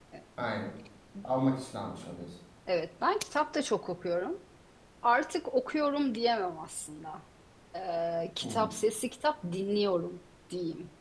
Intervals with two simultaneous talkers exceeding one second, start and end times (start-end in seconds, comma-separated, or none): none